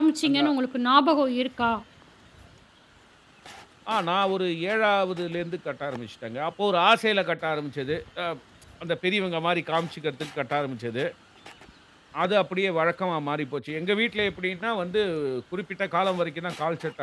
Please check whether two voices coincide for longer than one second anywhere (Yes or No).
No